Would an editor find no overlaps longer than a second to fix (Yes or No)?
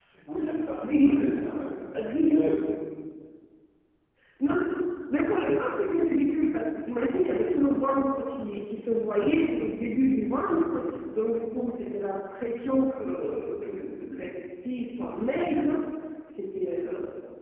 Yes